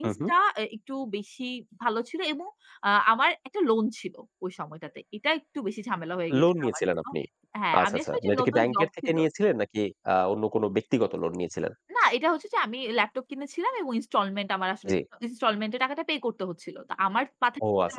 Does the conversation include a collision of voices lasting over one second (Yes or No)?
Yes